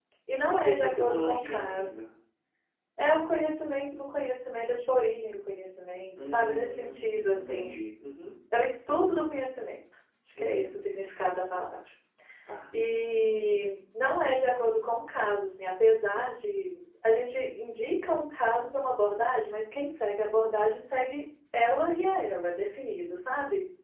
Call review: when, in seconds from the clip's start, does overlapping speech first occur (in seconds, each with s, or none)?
0.5 s